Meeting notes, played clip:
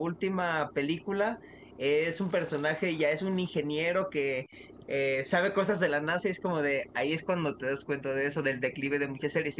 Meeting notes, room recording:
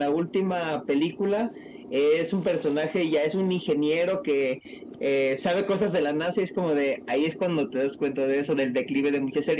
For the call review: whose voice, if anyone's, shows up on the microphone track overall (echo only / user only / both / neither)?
echo only